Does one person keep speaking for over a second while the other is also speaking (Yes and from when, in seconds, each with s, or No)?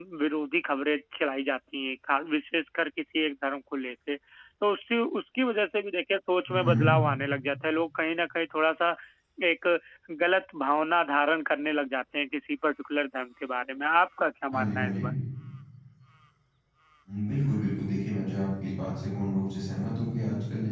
No